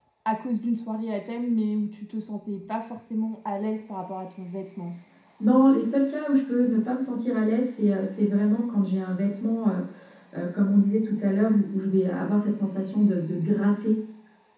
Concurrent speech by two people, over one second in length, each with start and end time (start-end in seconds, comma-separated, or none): none